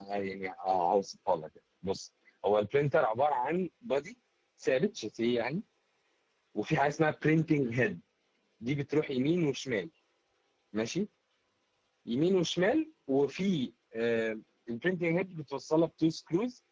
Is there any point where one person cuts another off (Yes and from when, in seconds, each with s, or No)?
No